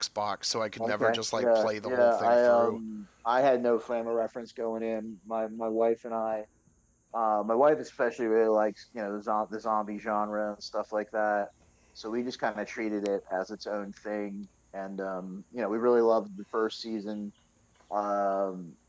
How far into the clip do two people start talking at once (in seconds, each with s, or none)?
0.8 s